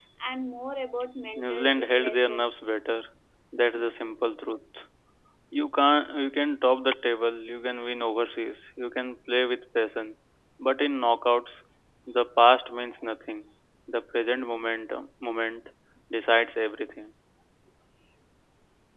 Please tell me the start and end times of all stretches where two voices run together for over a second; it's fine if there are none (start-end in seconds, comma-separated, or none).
1.4-2.7